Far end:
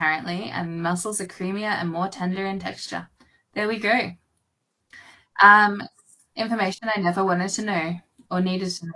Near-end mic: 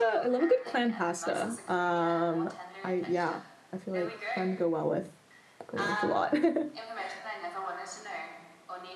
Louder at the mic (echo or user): user